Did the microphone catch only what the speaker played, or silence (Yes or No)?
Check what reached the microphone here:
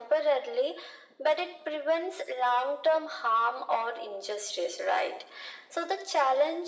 Yes